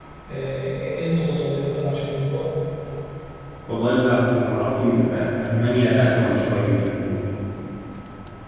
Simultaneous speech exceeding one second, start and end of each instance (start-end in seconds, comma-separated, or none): none